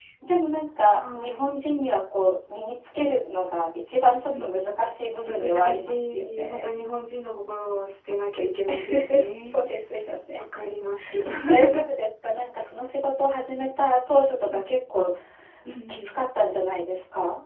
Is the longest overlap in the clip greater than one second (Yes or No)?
Yes